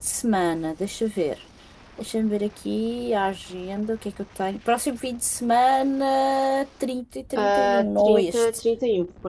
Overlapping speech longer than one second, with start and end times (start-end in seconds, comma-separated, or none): 7.4-8.6